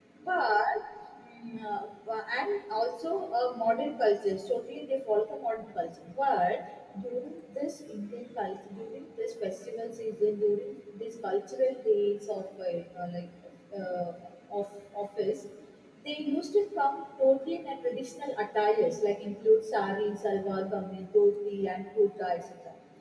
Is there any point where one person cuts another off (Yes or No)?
No